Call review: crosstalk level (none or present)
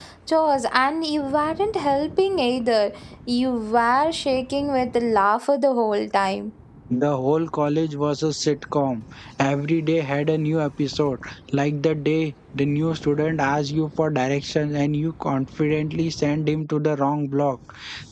none